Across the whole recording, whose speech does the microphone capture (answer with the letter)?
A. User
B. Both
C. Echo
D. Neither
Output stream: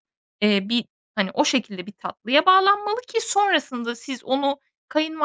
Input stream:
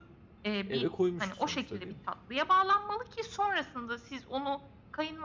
B